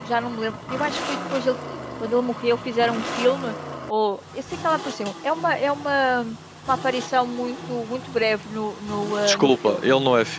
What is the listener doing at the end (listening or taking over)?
taking over